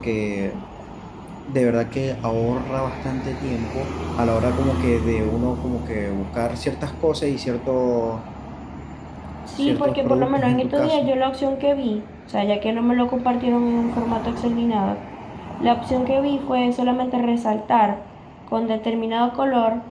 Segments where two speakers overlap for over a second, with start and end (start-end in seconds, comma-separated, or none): 9.6-11.1